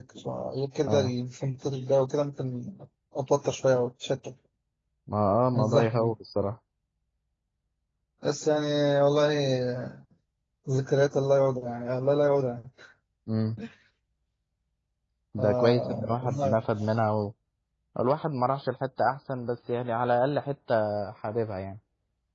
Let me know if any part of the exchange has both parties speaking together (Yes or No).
Yes